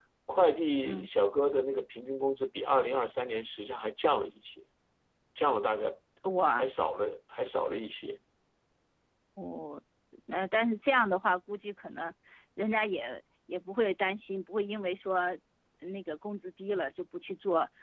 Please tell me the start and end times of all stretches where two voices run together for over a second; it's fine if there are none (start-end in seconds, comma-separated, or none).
none